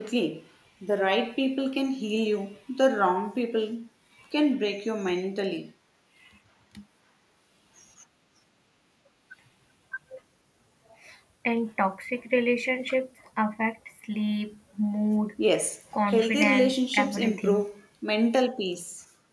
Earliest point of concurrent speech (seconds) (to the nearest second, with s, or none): 16 s